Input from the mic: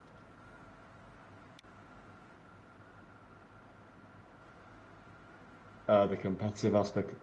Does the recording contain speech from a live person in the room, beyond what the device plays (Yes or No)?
Yes